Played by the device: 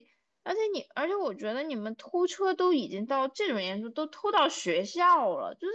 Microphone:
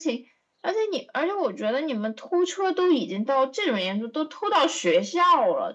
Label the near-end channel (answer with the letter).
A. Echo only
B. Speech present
A